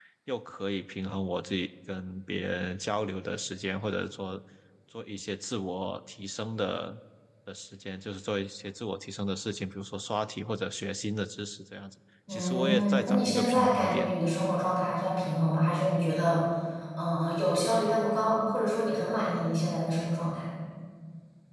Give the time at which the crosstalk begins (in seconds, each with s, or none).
12.3 s